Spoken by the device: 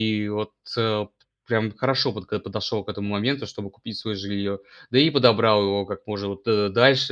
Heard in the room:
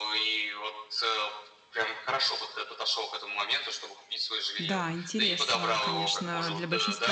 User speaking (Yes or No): Yes